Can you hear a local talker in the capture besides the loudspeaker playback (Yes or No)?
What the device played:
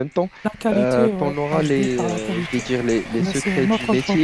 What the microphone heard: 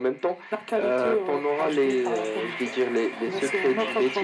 Yes